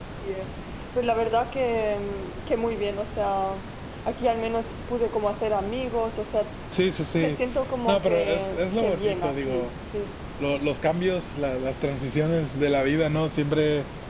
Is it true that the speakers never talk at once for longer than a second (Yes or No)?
No